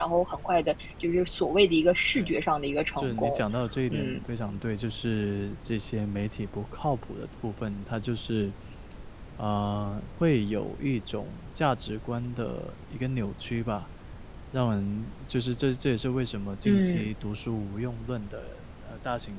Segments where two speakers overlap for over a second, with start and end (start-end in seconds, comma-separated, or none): none